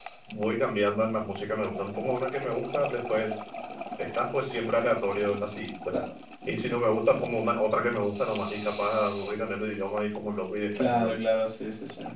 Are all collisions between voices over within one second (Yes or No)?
Yes